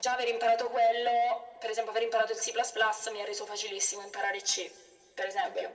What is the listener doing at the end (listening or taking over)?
listening